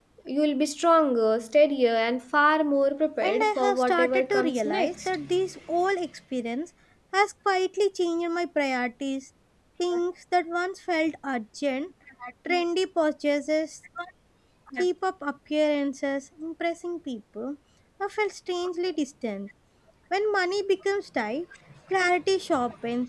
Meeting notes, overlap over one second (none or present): present